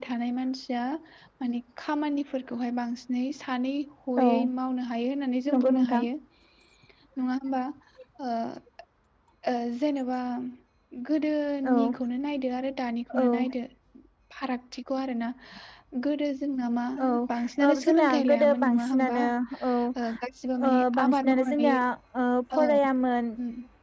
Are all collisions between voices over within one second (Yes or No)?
No